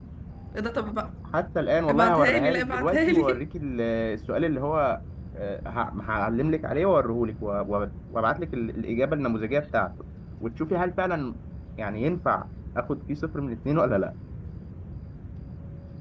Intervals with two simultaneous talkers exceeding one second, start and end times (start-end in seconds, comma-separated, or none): 1.9-3.4